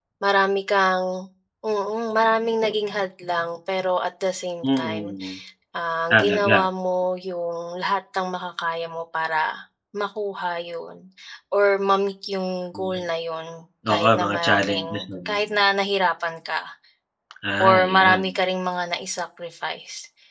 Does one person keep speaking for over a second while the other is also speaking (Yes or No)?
Yes